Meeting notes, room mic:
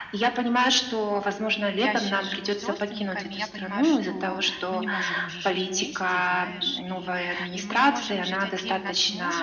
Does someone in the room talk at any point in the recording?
Yes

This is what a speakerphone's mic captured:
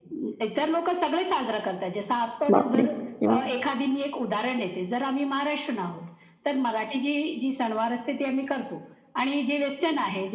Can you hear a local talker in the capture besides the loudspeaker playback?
Yes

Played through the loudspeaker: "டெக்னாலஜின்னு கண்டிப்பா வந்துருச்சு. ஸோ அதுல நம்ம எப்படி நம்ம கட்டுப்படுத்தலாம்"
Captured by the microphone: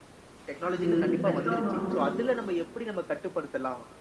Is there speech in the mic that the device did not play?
Yes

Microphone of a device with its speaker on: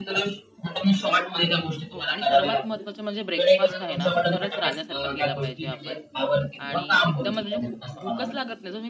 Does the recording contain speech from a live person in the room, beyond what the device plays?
Yes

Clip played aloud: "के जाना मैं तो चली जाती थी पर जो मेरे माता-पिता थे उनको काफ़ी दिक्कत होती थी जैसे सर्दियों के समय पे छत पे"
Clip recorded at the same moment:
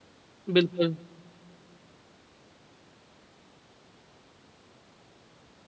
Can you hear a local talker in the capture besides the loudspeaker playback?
Yes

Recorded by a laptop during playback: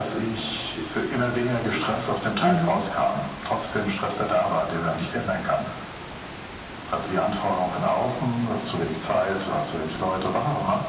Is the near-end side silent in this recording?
No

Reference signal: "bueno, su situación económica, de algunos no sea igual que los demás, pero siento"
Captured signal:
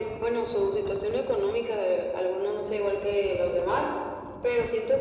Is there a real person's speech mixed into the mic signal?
No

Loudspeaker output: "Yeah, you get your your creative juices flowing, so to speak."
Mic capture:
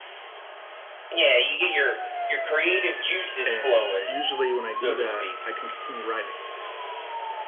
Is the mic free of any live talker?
No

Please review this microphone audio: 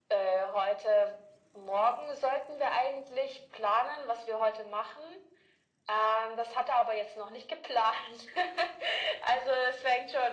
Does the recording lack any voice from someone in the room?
Yes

